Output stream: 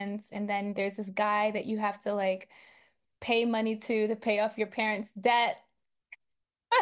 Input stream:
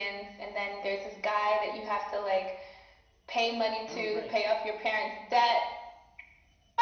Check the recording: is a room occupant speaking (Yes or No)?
Yes